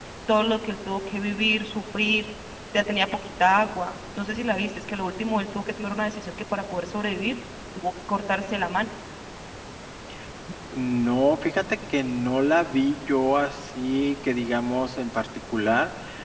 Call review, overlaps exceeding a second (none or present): none